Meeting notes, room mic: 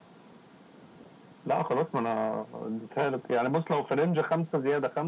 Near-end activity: none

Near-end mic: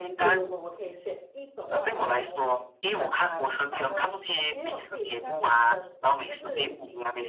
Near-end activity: present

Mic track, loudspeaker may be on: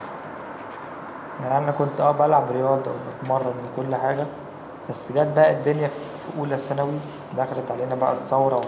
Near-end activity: present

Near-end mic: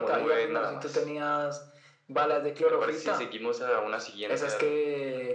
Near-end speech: none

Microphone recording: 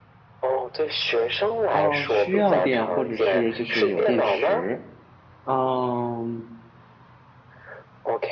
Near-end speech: present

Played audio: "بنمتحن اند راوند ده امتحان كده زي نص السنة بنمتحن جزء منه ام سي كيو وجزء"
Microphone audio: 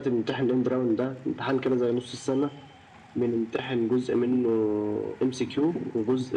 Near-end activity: none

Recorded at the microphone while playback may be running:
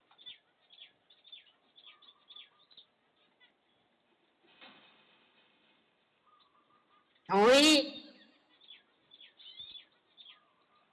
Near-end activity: present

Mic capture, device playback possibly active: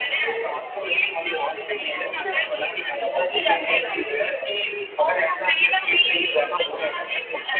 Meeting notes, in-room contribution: none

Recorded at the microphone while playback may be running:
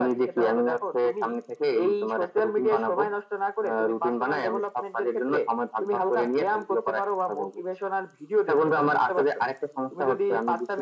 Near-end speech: none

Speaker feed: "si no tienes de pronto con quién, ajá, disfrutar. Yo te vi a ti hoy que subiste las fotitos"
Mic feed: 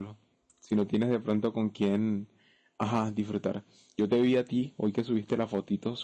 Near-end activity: none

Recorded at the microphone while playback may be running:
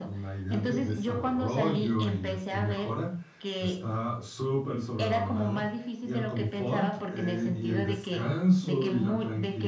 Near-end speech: present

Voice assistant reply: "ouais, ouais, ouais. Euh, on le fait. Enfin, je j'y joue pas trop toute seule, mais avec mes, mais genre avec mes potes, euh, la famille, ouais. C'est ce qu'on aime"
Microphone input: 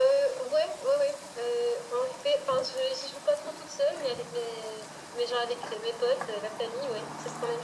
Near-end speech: none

